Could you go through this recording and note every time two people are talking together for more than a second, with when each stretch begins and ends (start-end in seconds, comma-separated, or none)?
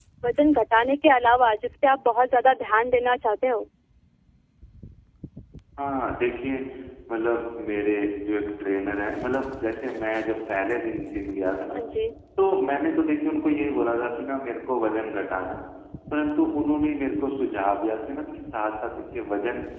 none